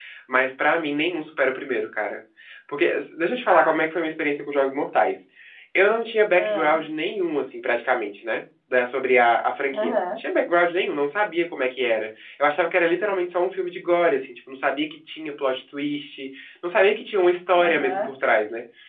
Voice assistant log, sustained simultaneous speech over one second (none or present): none